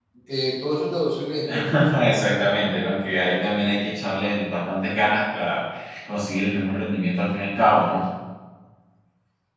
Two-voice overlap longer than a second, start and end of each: none

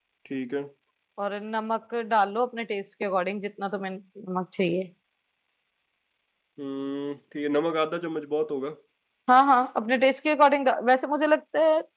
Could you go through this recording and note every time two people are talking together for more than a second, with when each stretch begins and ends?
none

